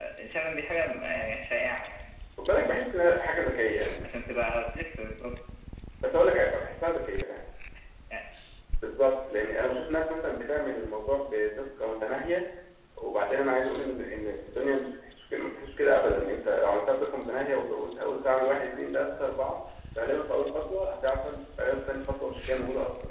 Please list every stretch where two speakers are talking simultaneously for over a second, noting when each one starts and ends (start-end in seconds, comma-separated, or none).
none